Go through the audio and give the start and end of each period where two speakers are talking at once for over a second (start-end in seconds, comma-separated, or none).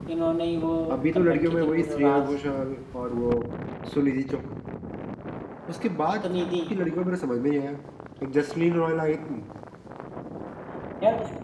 1.1-2.4